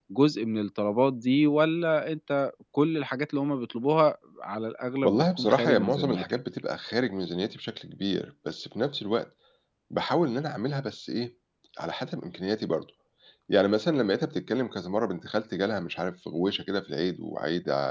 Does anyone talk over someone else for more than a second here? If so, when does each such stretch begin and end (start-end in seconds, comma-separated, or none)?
5.0-6.2